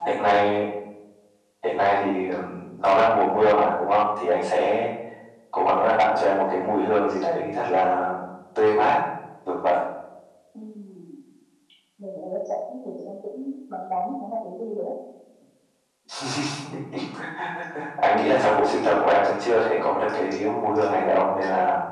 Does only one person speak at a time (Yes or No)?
Yes